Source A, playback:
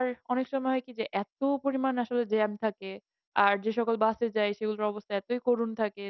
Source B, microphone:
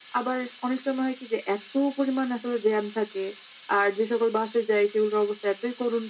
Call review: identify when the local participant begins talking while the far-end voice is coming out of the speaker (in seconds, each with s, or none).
none